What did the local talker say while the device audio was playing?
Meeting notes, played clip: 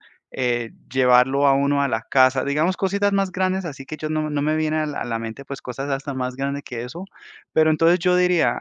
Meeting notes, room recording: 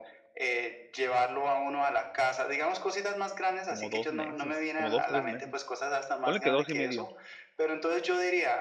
como 2 meses, como 2 3 meses. Ponle que 2 y medio,

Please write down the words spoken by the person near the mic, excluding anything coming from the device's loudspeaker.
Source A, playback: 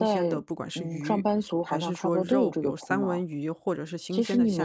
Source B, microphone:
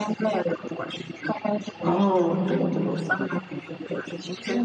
哦，

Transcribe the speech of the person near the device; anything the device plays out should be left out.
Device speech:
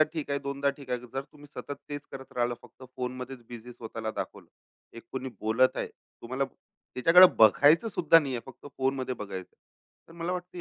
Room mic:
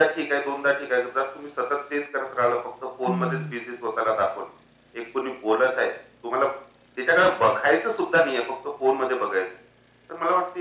हं,

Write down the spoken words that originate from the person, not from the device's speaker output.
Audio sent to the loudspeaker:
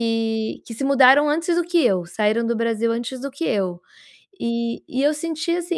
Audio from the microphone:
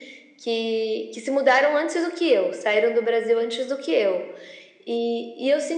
none

